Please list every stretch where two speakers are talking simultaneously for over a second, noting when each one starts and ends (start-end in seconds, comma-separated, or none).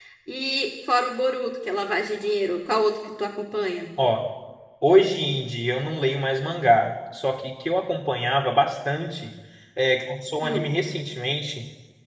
none